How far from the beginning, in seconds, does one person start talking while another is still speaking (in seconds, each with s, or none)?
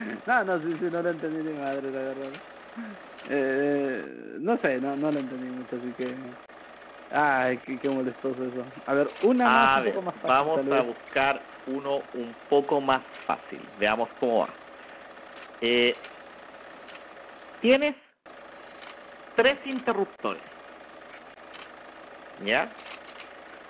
9.4 s